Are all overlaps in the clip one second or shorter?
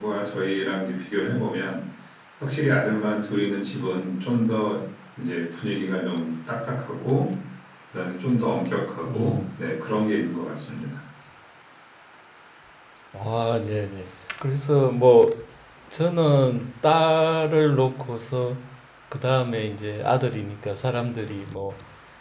Yes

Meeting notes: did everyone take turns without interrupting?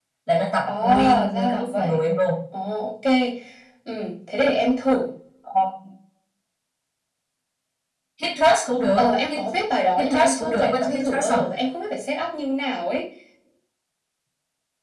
No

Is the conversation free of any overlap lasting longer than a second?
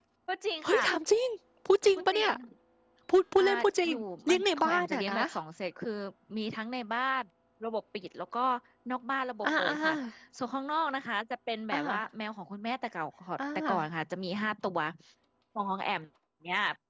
No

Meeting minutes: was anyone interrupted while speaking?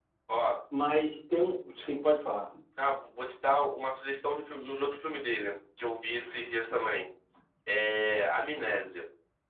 No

